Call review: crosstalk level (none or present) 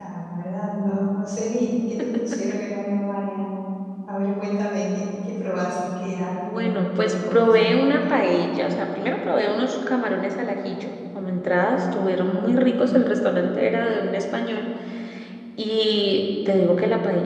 present